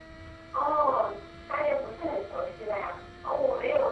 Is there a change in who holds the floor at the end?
No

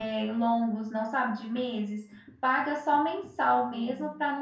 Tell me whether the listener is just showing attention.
Yes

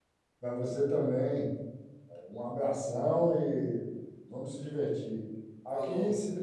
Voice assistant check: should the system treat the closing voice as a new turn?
No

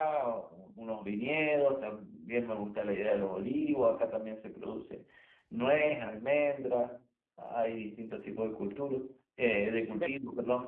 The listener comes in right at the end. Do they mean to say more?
No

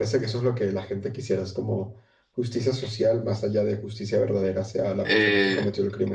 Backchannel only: No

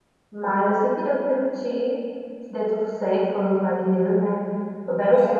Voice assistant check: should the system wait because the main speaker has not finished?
No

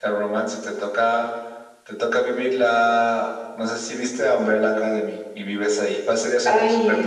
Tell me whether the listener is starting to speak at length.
Yes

